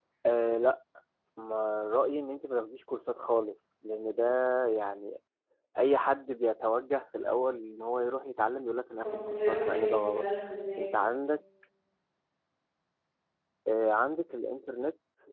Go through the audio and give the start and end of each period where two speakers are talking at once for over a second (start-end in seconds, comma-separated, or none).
9.0-10.3